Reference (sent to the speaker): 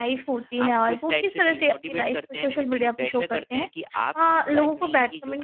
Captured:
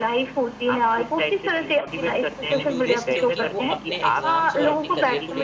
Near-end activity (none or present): present